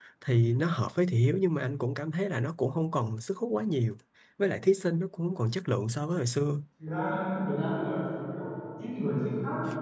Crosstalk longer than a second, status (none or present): none